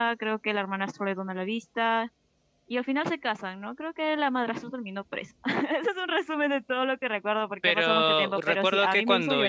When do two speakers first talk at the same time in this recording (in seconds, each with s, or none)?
7.6 s